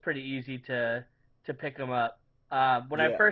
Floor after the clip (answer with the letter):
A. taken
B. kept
B